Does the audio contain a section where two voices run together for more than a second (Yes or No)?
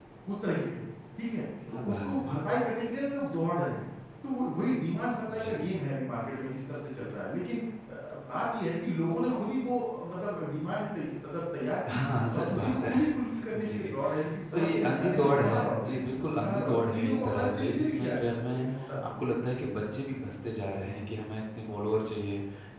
Yes